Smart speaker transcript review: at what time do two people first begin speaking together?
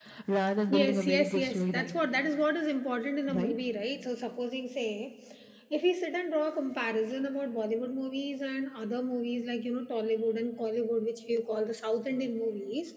0.8 s

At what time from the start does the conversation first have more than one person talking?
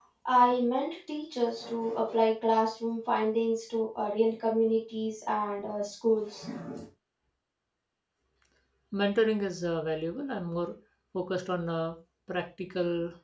none

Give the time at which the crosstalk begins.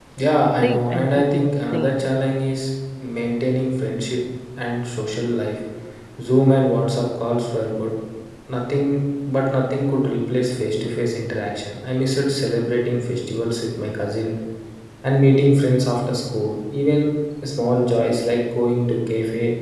0.5 s

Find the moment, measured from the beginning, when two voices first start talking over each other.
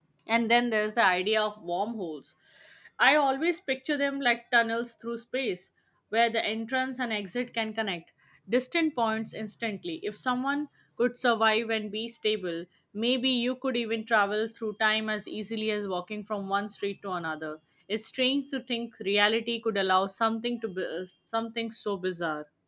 none

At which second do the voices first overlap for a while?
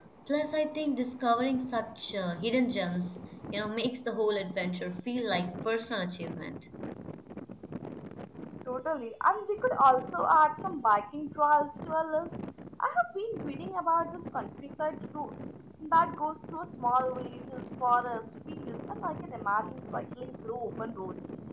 none

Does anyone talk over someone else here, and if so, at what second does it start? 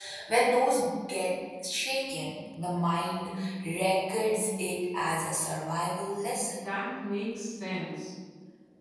none

